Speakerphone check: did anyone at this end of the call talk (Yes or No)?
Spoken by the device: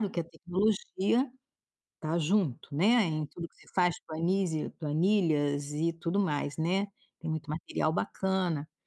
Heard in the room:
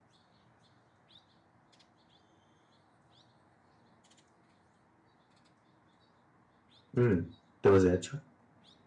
Yes